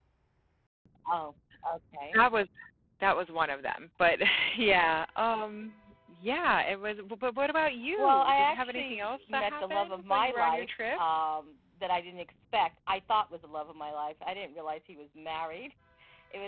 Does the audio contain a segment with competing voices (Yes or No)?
Yes